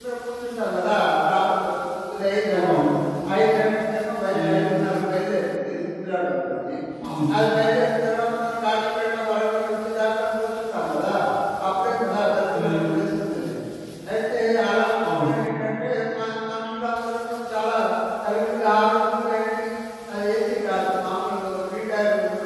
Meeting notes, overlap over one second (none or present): none